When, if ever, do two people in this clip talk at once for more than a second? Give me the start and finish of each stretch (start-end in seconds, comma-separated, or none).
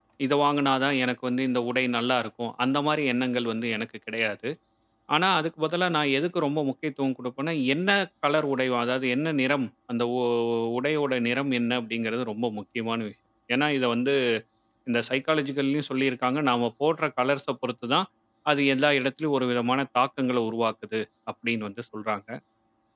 none